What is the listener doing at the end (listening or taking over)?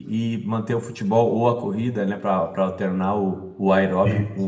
listening